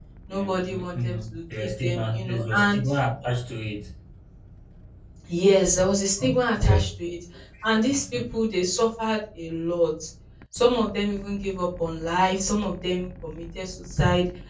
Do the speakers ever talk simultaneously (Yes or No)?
Yes